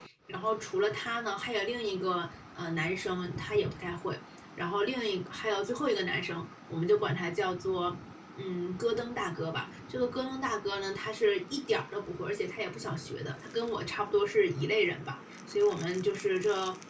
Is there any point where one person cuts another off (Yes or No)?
No